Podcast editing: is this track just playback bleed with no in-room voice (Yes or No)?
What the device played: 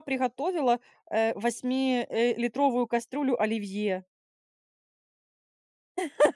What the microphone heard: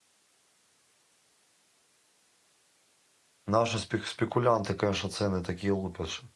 No